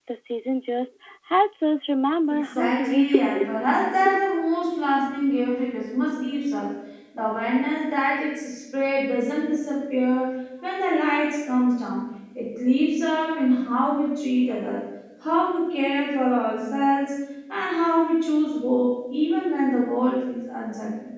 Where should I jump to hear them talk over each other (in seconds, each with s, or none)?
2.3 s